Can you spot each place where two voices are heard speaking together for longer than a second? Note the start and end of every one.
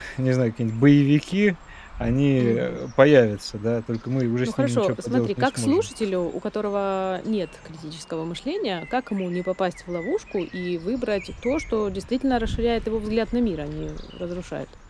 4.5-5.9

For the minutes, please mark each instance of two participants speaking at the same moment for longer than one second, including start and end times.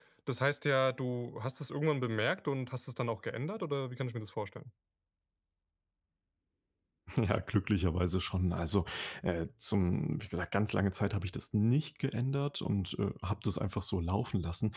none

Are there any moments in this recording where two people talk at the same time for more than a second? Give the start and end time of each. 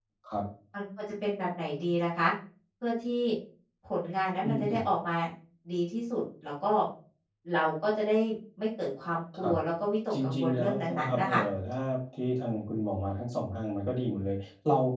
10.2-11.4

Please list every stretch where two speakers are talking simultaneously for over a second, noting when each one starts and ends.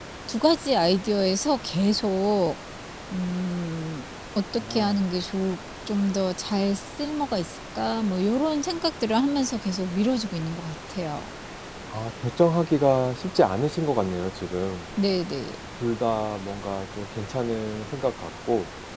none

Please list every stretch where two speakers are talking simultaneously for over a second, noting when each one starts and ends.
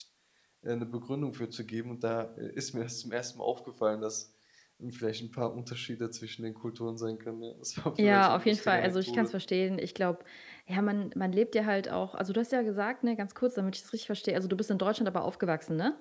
8.0-9.3

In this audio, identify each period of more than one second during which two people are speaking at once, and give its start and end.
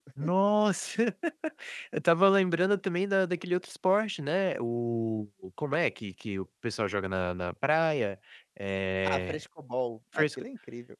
none

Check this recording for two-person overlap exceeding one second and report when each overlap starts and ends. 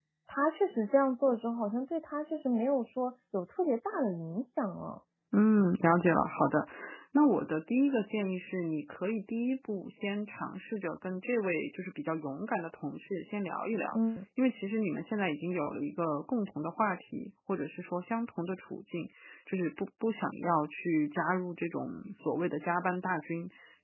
none

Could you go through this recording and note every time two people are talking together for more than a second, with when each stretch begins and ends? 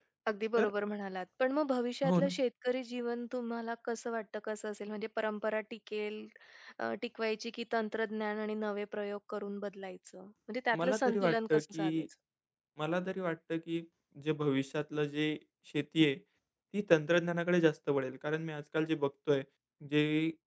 10.8-12.0

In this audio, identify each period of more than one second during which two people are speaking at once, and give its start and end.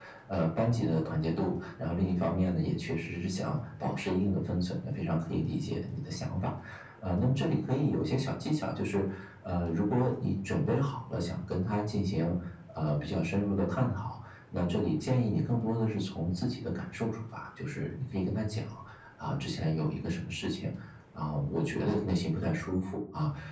none

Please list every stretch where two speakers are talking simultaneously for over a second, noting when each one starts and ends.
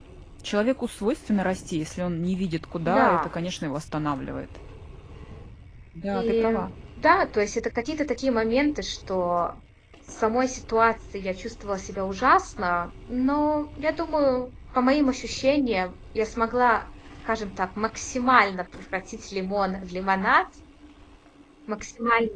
none

